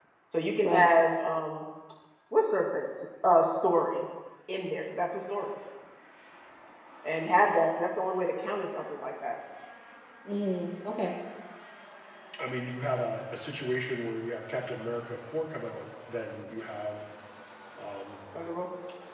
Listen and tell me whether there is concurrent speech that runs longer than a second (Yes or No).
No